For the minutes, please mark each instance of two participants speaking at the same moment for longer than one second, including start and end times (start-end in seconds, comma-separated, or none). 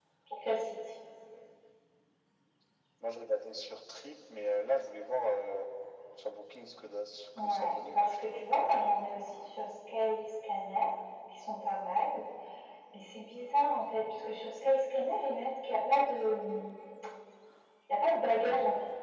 7.4-8.6